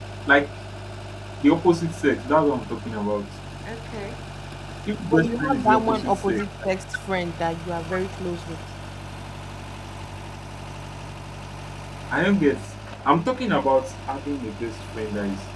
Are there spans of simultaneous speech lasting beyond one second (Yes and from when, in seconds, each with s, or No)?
Yes, from 5.0 s